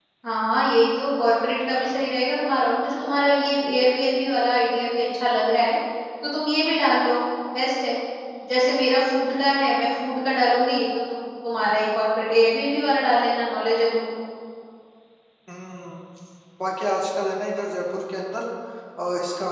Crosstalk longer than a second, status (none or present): none